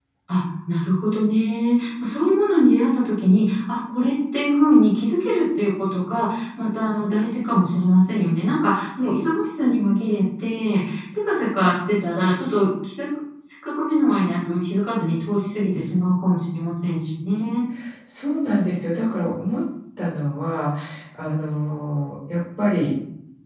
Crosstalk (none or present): none